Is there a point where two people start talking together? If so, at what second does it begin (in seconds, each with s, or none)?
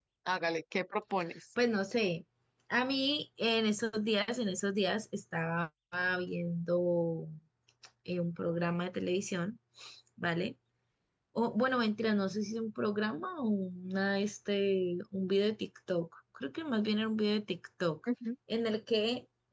none